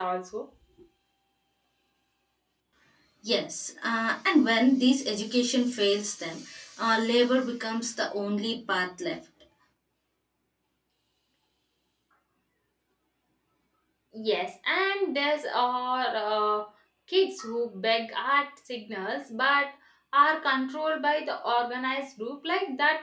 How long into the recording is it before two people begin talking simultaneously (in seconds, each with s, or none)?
none